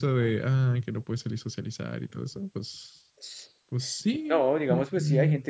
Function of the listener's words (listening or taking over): taking over